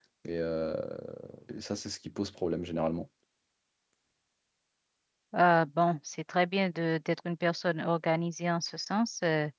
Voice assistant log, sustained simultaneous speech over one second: none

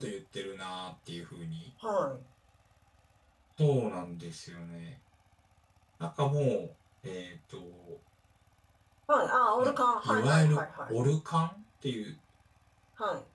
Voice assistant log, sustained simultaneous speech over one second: present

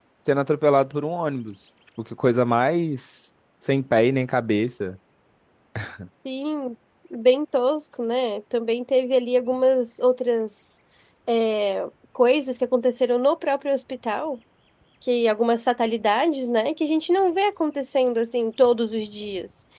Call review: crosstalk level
none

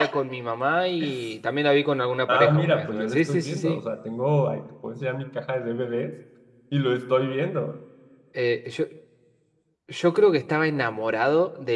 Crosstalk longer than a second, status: present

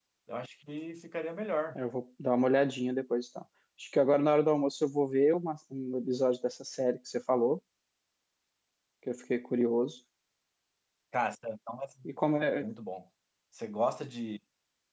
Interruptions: none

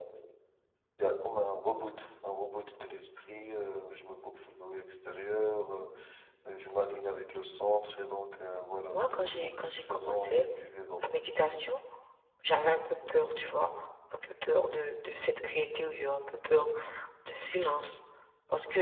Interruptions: present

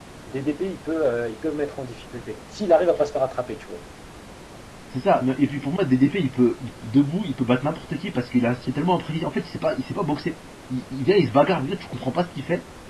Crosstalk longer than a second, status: none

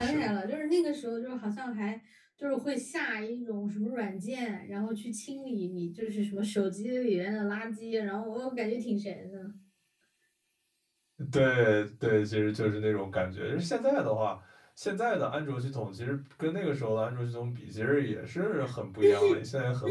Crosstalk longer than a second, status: none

